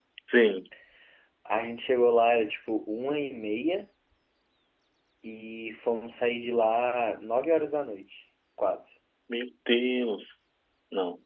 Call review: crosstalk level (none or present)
none